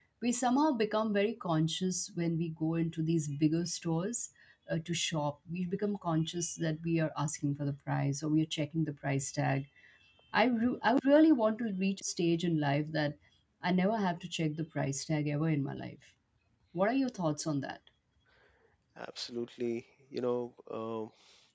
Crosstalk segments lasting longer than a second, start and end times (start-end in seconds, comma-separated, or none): none